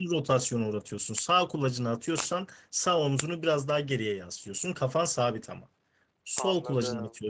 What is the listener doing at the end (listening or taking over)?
listening